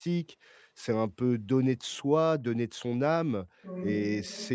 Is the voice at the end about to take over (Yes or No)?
No